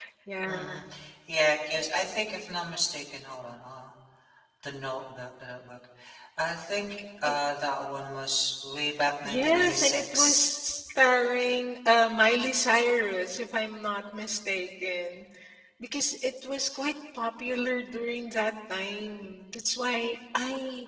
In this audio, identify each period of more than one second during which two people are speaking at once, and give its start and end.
9.2-10.5

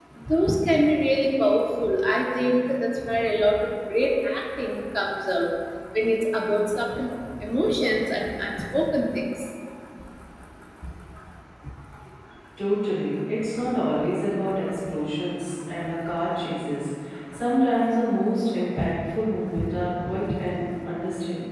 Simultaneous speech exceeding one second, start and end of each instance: none

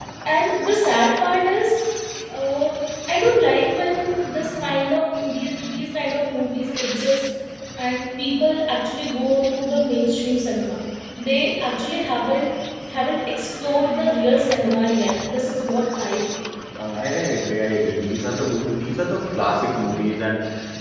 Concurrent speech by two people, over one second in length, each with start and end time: none

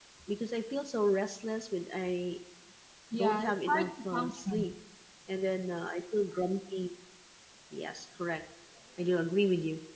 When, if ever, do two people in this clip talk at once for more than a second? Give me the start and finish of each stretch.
3.1-4.6

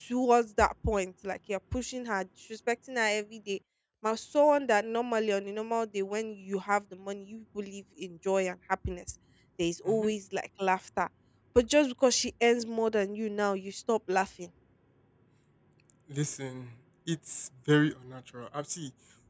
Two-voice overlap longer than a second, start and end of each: none

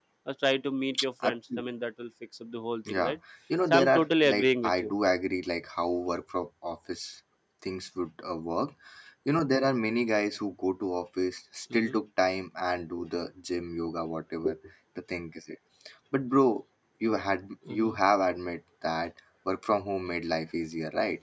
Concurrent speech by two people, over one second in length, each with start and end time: 3.7-4.9

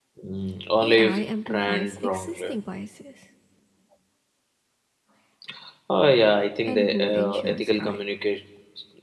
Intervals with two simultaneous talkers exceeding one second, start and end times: 0.8-2.5, 6.7-8.0

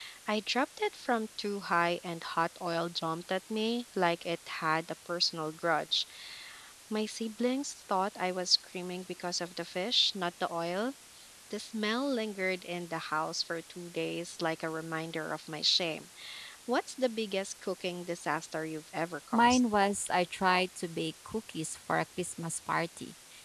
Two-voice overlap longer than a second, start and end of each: none

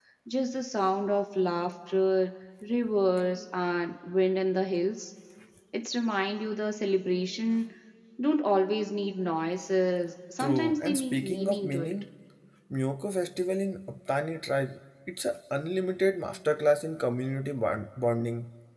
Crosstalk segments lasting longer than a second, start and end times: 10.4-11.9

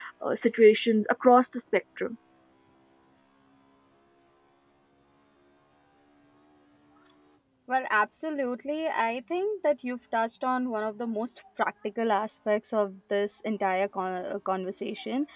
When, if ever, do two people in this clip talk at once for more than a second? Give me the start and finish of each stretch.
none

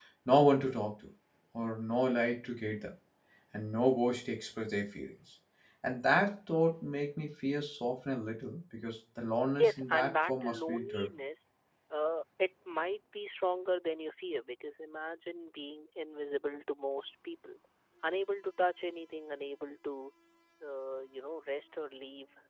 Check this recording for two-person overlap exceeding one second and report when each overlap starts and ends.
9.6-11.1

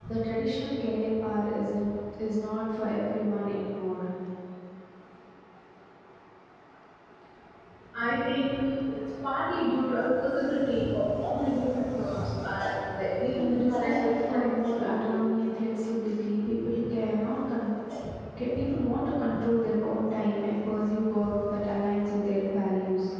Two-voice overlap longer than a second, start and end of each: 13.4-15.2

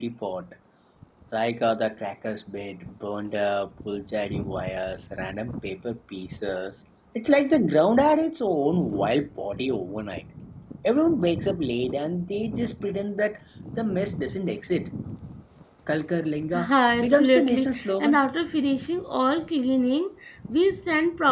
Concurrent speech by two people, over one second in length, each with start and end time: 16.5-18.2

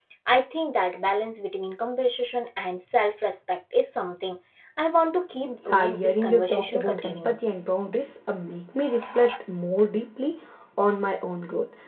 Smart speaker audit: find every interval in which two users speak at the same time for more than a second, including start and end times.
5.7-7.5

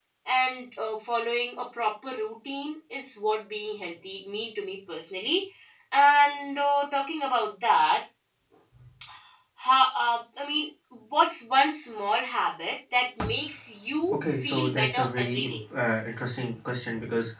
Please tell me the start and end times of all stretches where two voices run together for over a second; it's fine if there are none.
14.1-15.6

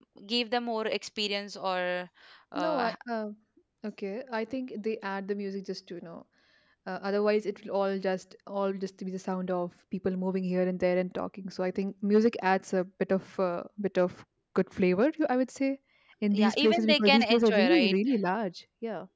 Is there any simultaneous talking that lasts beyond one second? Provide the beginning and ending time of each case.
16.3-17.9

